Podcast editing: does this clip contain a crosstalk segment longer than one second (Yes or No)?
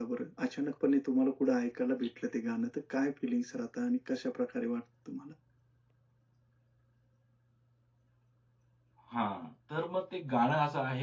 No